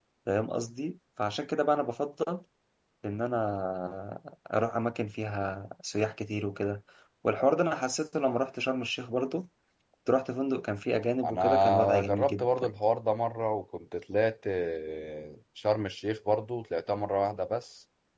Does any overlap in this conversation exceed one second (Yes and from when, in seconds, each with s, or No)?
Yes, from 11.2 s